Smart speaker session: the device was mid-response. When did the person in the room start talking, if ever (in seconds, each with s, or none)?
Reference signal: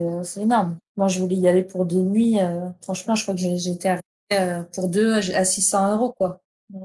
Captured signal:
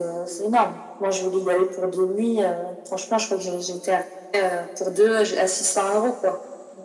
none